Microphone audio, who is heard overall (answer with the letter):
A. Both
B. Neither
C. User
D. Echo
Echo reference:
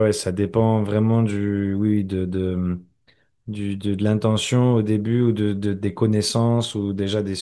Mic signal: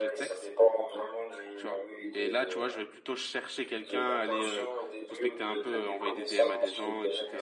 A